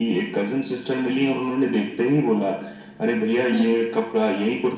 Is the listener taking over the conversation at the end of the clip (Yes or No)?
No